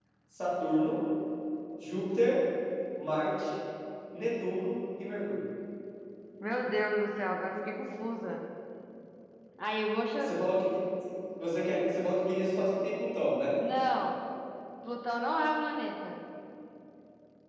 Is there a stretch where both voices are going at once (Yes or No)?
No